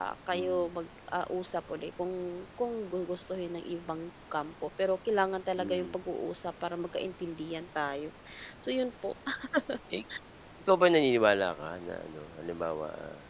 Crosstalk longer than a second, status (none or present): none